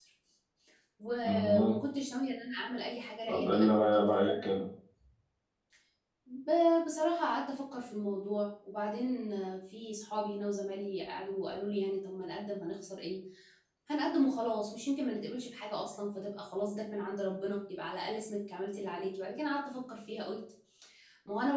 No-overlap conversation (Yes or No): No